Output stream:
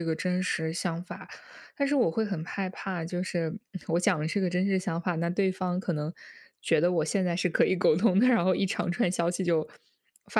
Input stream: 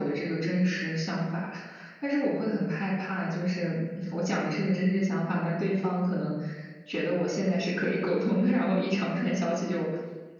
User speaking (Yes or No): No